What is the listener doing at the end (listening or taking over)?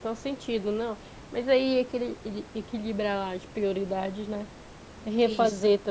listening